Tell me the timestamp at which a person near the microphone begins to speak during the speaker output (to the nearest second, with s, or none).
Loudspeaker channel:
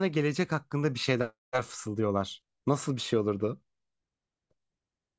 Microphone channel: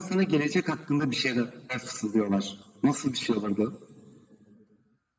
none